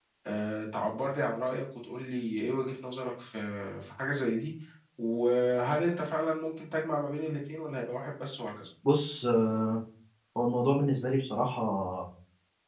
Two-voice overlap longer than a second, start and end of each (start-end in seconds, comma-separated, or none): none